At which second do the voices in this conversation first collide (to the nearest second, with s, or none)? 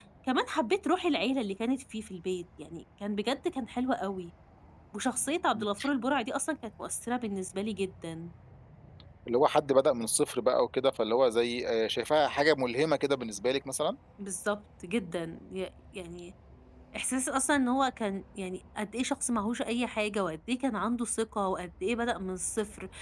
none